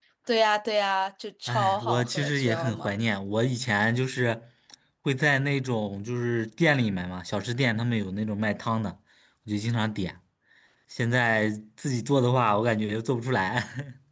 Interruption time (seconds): 1.5 s

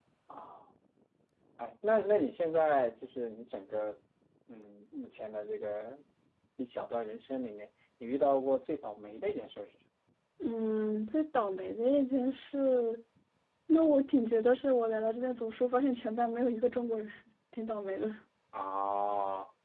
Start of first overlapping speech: none

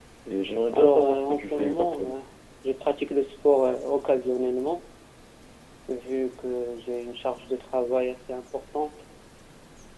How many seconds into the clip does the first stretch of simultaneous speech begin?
0.7 s

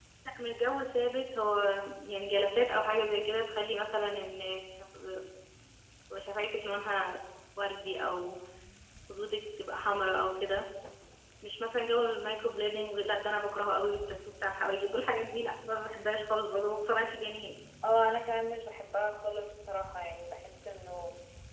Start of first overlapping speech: none

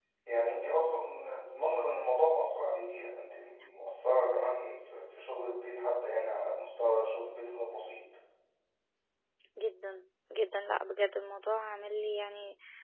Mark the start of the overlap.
none

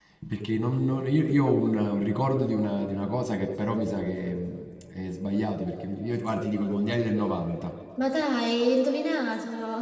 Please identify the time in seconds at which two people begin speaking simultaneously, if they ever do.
none

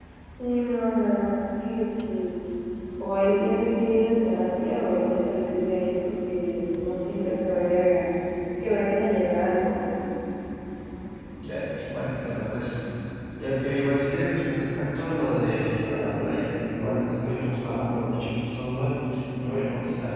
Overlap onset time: none

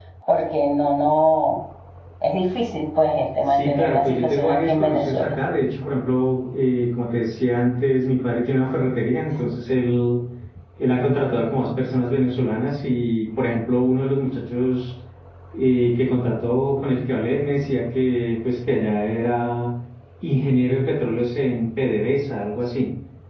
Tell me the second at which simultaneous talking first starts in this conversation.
3.5 s

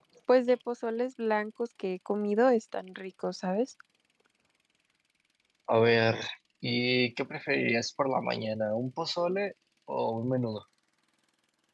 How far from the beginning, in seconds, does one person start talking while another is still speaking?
none

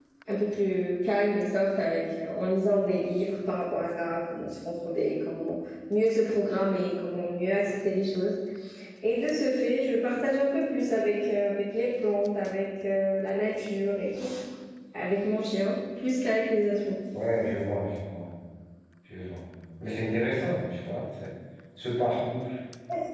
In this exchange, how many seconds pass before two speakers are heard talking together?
none

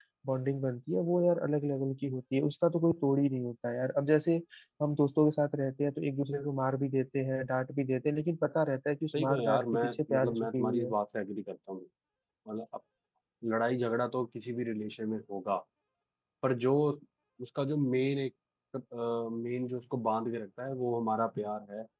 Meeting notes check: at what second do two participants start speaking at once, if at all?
9.1 s

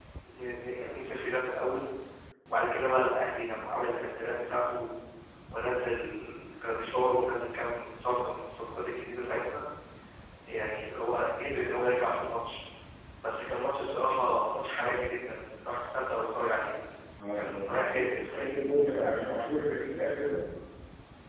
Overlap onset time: 17.4 s

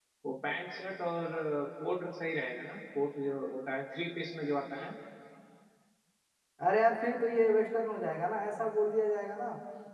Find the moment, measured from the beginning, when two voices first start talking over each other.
none

